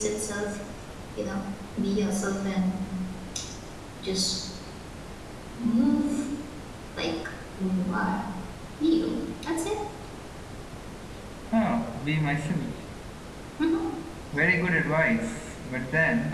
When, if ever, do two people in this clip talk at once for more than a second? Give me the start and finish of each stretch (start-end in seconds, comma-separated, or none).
none